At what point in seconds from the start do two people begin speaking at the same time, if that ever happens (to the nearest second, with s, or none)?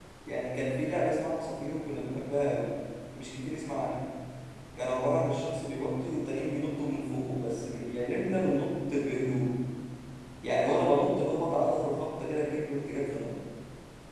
none